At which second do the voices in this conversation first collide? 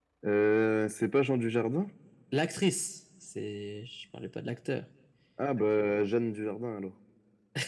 none

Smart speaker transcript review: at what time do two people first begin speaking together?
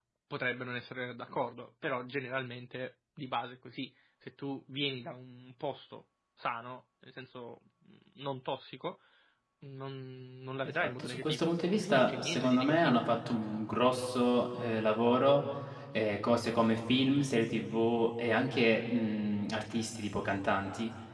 10.8 s

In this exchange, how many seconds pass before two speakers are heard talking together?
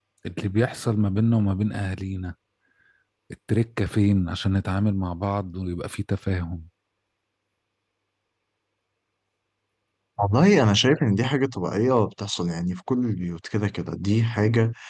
none

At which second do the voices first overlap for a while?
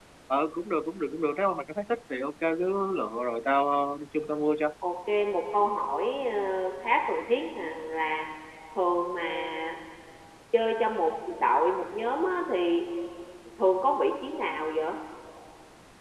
none

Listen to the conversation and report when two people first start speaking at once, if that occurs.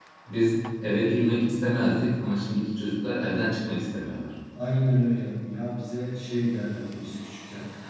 none

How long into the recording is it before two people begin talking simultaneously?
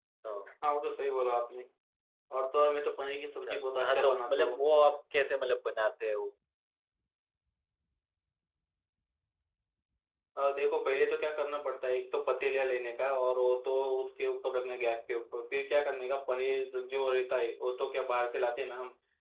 3.4 s

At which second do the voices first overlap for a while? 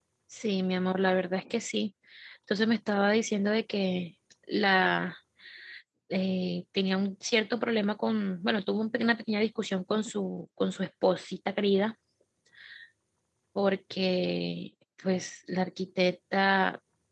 none

